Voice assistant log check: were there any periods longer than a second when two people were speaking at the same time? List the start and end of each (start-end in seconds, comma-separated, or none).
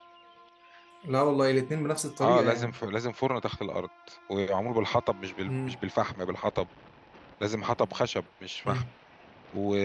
none